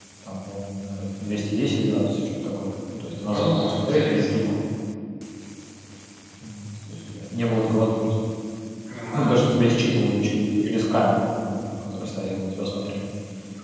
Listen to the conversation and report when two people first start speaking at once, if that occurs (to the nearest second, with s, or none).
3 s